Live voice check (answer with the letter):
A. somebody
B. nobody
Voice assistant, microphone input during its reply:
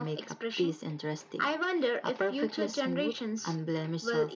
B